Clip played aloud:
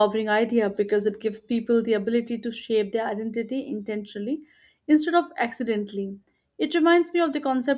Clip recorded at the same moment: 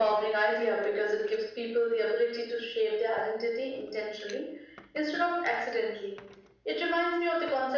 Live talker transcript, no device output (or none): none